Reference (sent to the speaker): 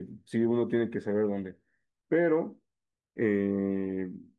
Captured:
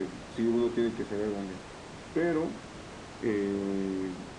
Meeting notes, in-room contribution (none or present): none